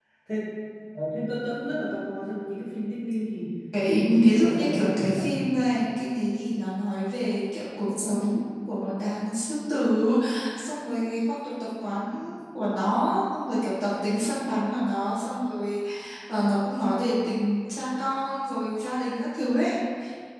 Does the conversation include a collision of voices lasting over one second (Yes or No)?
Yes